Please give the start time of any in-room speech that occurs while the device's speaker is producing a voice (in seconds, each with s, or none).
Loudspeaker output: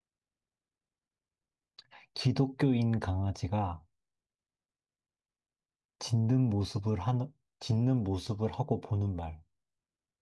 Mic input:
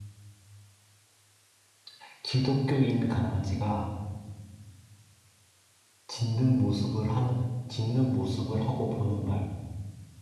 none